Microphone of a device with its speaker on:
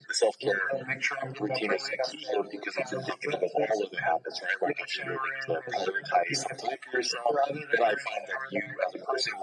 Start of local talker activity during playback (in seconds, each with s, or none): none